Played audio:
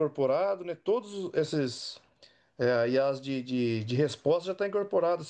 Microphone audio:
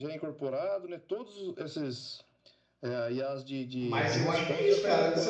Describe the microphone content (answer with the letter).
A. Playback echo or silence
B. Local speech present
B